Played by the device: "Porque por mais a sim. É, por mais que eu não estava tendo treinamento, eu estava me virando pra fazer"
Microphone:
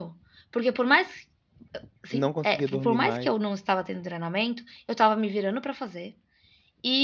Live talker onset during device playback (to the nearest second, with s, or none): 2 s